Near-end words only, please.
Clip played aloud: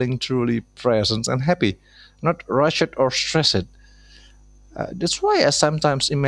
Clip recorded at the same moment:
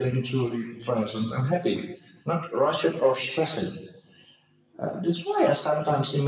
none

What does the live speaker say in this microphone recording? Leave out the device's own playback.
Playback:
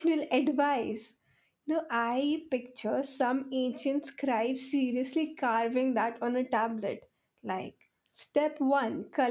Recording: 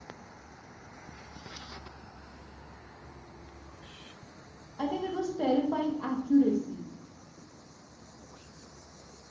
i think it was terrifying accuracy

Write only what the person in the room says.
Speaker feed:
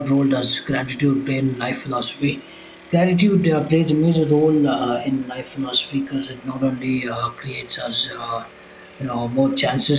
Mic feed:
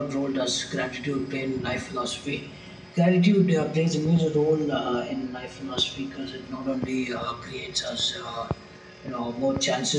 none

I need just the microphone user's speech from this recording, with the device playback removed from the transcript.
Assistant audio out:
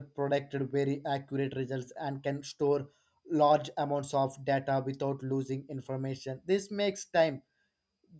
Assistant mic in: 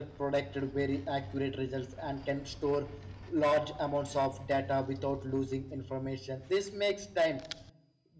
none

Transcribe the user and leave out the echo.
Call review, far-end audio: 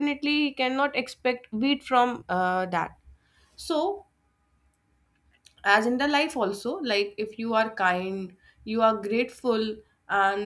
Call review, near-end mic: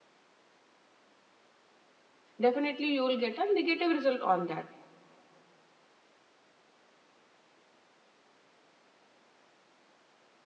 definitely you will get a negative result on that

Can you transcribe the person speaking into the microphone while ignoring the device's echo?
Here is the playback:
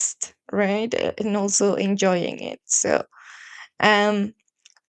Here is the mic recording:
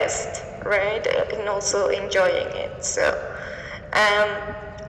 none

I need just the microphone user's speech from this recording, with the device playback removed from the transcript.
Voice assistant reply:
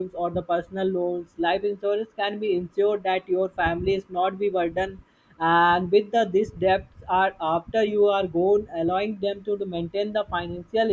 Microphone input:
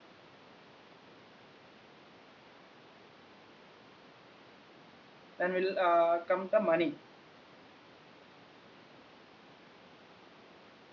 then will uh, come the money

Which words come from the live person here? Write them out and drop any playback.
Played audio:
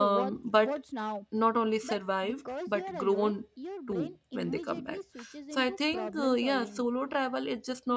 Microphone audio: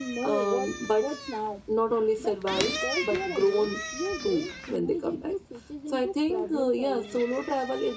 none

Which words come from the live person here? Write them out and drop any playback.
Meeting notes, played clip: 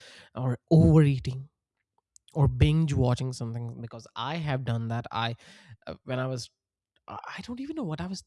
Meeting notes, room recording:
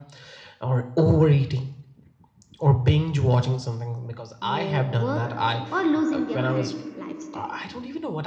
more work, or losing their current lifestyle.

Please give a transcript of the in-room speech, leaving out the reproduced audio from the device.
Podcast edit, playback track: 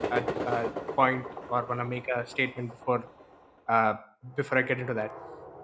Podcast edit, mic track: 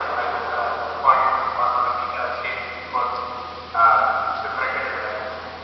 none

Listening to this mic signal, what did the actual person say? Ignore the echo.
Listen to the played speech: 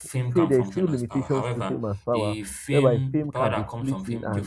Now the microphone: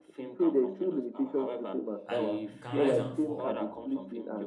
And it can rise and fall

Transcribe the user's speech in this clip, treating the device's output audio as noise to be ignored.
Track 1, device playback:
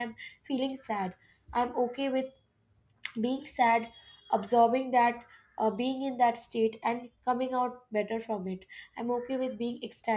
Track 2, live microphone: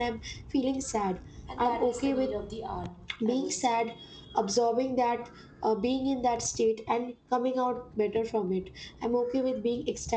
and that is the need of the hour, I would say.

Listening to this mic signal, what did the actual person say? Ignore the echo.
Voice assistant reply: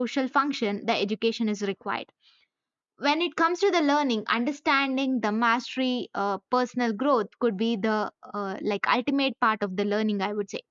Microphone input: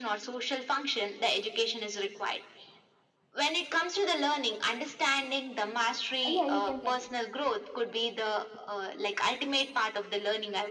yeah you can continue

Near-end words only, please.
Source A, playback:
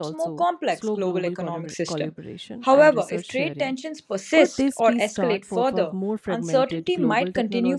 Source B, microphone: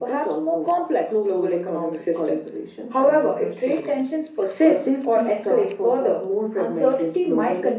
none

